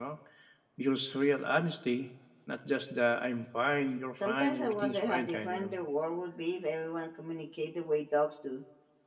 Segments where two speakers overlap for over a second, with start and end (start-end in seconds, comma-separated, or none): 4.2-5.7